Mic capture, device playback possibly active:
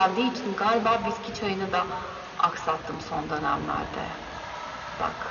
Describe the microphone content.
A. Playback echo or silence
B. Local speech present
A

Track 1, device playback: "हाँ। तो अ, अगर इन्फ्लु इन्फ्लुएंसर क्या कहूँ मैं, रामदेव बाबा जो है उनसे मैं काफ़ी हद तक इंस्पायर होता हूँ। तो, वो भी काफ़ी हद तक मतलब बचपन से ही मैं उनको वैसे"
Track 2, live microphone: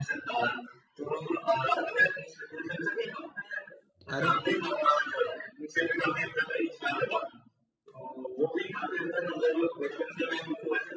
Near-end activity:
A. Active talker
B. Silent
A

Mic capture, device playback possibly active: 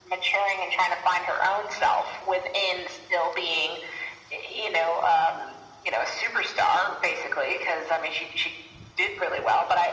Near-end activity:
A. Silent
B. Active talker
A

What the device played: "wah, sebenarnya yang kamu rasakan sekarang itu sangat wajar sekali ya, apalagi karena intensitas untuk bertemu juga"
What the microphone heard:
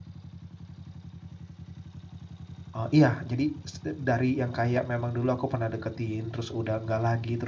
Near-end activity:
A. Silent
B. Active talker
B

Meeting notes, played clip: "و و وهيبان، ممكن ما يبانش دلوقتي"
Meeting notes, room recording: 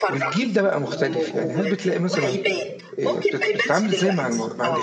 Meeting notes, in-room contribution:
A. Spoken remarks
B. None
A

